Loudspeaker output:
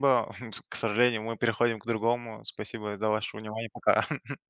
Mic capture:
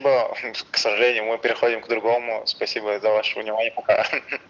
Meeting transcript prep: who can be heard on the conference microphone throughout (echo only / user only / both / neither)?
echo only